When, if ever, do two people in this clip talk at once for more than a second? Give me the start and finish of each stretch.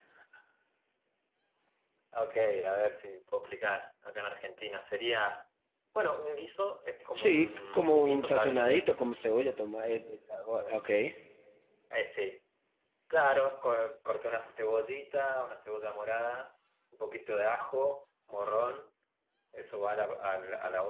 7.1-8.9

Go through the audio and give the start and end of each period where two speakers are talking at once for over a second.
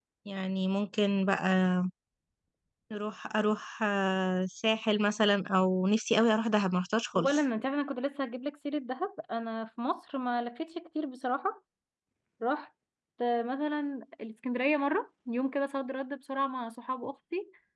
none

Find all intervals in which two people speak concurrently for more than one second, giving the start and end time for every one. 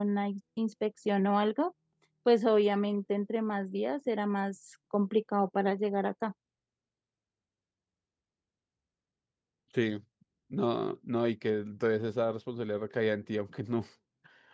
none

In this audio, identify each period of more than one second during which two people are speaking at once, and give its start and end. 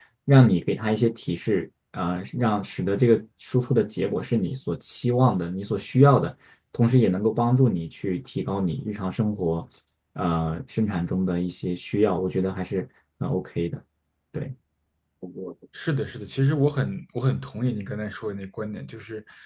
none

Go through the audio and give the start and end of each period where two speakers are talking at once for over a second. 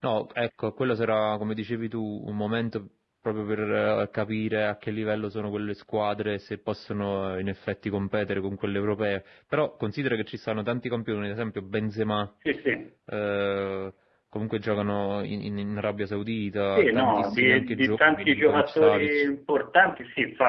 16.8-19.2

